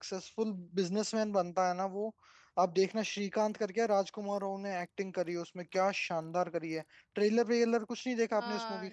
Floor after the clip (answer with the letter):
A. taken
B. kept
A